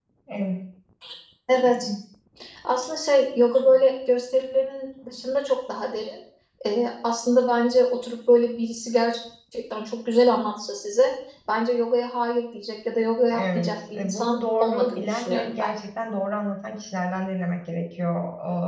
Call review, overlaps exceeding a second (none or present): present